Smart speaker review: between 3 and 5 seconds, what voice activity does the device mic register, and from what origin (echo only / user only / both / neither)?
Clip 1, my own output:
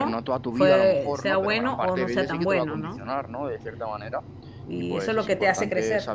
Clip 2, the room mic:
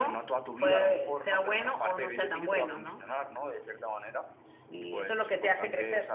echo only